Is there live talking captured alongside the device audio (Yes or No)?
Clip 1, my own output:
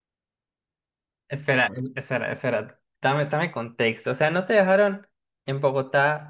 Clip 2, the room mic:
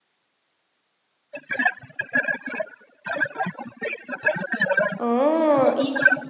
Yes